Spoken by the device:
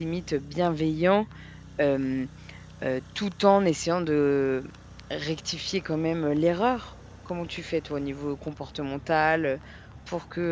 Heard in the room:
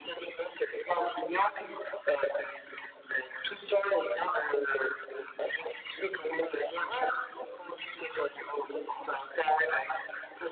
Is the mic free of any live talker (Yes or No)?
Yes